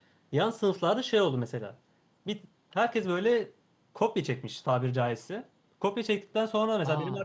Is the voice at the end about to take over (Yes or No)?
No